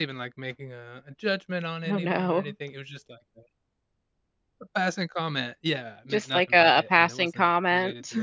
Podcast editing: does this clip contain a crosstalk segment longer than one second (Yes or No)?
Yes